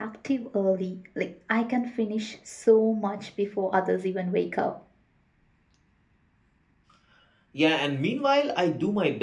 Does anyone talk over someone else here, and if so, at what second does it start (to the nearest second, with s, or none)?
none